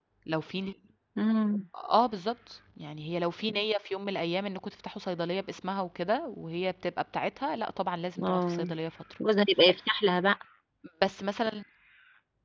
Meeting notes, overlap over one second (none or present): none